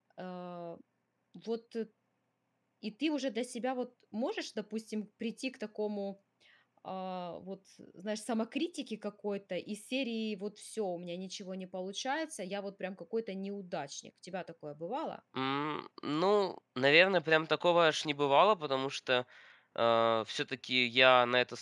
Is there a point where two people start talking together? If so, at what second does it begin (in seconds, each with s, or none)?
none